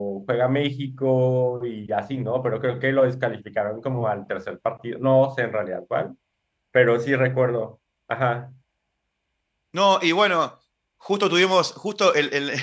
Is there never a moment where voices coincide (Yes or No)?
Yes